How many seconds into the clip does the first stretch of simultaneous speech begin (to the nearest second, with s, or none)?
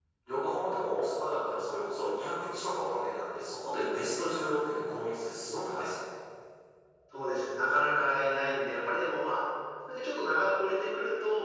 none